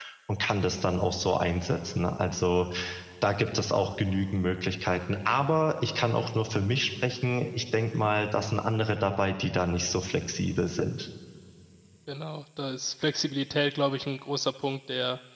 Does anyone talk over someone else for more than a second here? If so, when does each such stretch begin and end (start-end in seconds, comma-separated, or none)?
none